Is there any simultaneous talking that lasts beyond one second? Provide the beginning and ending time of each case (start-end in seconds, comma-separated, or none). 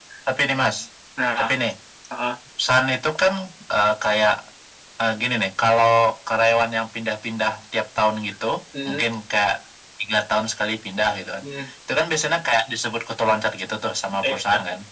none